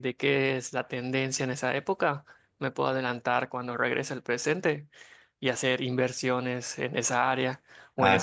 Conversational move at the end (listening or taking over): taking over